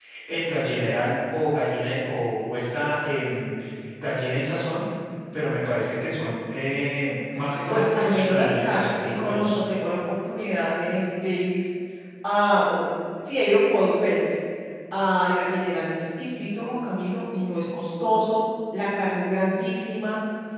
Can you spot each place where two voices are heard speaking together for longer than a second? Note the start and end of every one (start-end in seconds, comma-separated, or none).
7.7-9.6